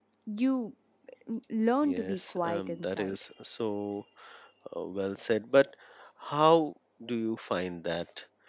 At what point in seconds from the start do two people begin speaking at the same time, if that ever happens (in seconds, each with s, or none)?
1.8 s